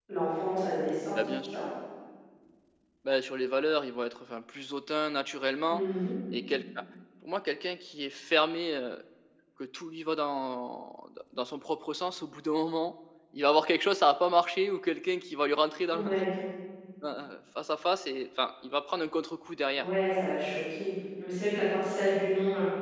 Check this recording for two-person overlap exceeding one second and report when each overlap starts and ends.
none

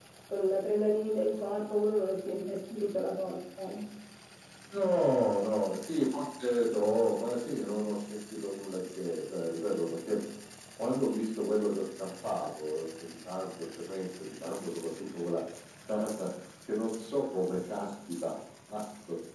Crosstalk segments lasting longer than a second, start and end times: none

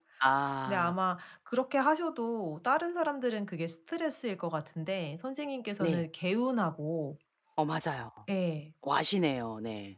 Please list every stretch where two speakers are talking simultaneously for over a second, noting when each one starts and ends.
none

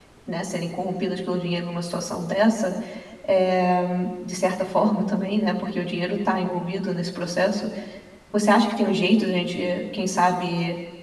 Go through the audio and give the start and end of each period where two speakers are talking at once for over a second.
none

